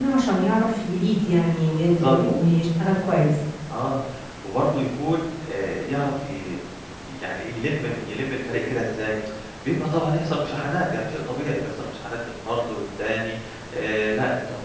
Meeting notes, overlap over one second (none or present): none